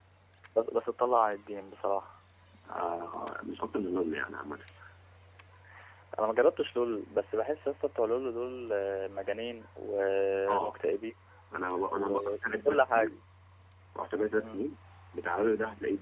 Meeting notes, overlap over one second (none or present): present